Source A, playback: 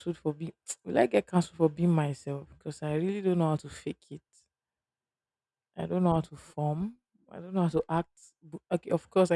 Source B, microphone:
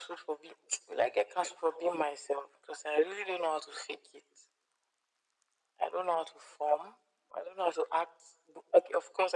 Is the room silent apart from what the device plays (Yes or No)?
Yes